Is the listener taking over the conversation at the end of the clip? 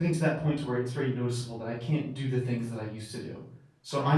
No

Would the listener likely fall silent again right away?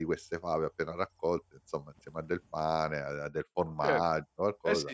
No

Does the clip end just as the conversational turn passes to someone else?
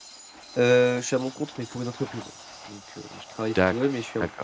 Yes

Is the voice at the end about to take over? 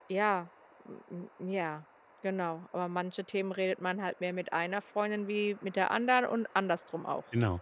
Yes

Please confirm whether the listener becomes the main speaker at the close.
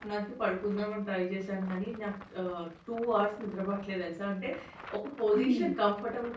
No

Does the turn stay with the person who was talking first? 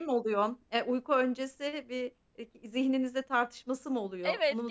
No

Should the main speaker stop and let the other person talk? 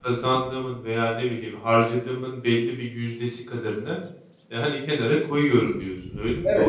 Yes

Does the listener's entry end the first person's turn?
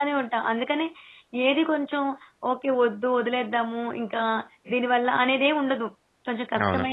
No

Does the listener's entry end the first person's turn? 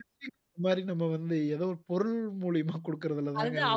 Yes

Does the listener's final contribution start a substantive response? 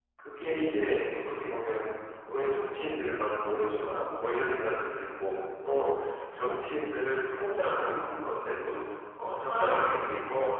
No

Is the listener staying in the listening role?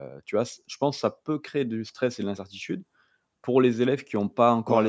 No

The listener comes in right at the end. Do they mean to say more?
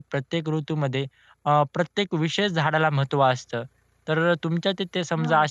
No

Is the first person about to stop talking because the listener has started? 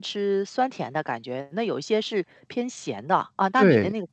Yes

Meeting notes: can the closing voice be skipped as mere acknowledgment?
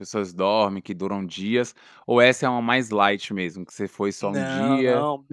No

